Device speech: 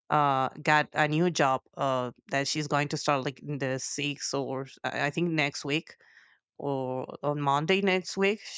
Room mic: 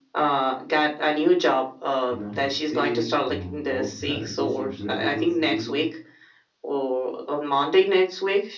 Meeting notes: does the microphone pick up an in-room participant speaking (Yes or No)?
Yes